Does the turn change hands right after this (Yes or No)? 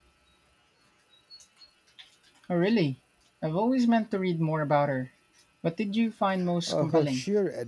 Yes